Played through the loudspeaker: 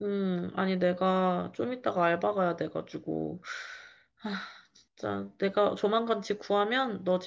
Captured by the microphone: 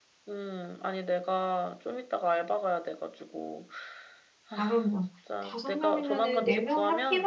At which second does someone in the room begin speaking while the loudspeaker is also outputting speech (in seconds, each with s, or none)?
4.6 s